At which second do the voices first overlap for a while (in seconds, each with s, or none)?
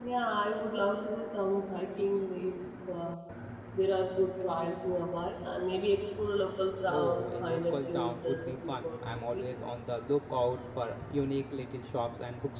6.9 s